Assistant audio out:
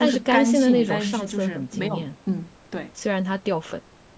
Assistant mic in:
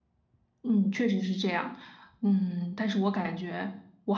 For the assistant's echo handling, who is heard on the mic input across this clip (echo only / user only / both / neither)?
user only